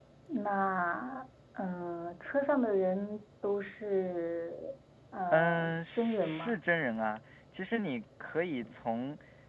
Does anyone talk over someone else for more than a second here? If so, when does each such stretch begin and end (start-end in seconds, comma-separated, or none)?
5.3-6.6